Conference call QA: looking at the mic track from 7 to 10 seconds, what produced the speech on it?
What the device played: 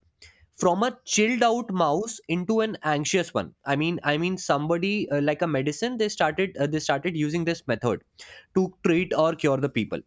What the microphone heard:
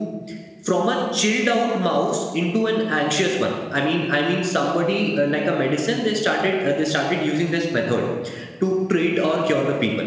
echo only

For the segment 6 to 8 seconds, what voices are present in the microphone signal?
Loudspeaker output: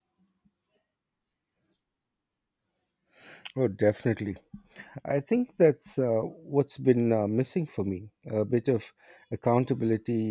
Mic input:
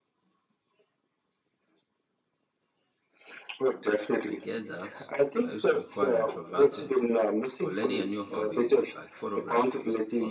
both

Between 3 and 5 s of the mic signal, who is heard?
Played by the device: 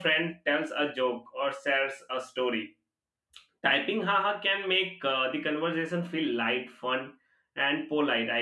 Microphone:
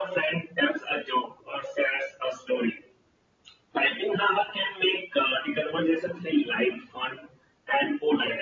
echo only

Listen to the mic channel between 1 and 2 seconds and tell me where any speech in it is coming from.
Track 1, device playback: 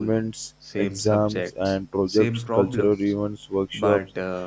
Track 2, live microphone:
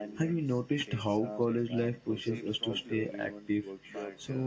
both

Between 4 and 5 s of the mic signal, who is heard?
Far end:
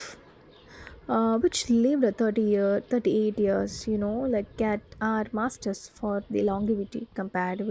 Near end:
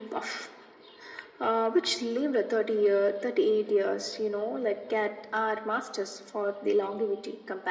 echo only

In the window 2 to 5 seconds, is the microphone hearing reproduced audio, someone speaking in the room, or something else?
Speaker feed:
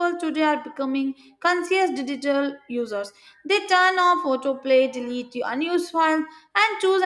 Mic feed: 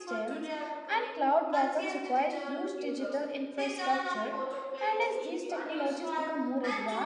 both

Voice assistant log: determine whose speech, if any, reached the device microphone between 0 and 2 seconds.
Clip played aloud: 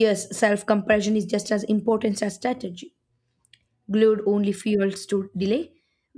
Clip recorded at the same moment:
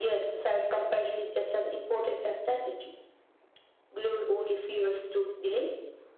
echo only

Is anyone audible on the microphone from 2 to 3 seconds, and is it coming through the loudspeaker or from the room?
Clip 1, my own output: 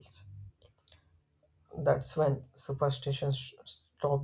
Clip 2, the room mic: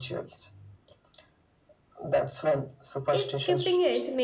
echo only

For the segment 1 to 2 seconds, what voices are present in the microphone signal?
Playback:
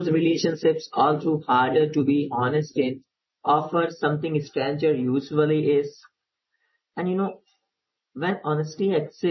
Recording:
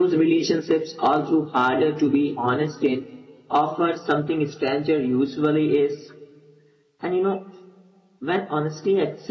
echo only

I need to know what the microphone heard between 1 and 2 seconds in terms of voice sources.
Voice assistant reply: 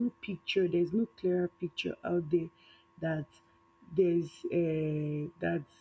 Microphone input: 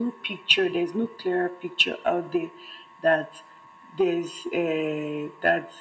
echo only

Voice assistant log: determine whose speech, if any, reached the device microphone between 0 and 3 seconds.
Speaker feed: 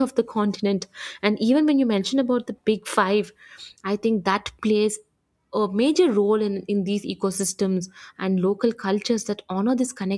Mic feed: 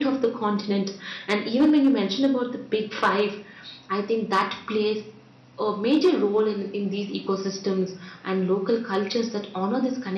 echo only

